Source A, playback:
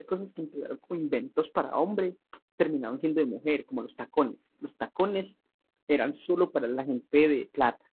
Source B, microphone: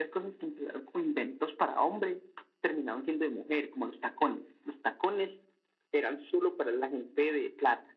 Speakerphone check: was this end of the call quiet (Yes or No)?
Yes